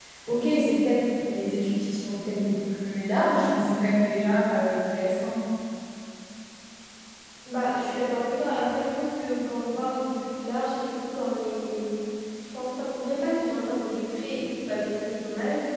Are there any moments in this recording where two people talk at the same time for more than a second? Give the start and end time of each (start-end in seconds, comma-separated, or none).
none